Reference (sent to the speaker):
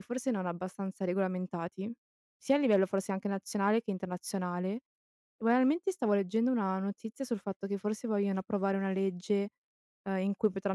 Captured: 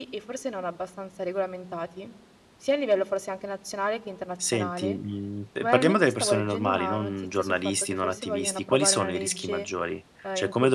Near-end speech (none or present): present